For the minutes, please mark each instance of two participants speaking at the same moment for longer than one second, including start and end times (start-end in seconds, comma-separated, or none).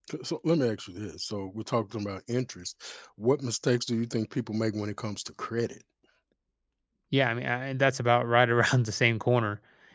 none